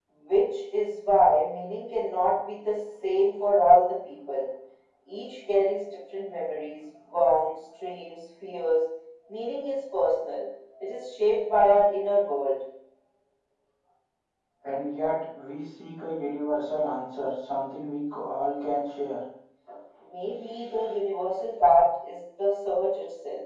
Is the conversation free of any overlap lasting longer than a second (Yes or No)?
Yes